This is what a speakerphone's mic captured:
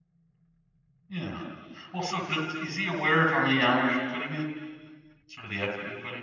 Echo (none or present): none